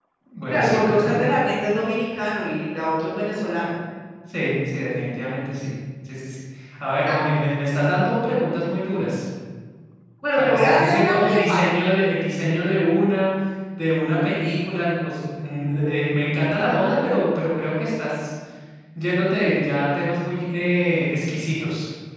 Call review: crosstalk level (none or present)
present